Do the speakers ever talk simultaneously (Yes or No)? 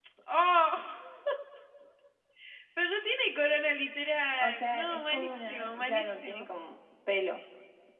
Yes